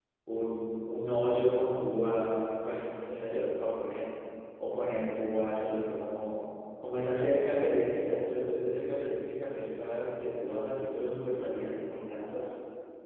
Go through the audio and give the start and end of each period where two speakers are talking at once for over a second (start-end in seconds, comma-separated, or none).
none